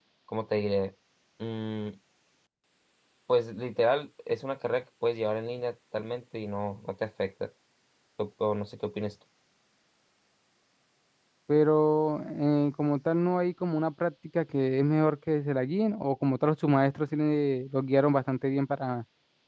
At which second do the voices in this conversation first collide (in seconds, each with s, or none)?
none